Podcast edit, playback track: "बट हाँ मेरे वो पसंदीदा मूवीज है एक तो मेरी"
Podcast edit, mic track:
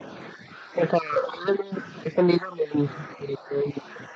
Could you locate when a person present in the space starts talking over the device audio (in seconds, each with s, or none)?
none